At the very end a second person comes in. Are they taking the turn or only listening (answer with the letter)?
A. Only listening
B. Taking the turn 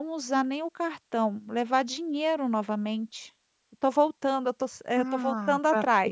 B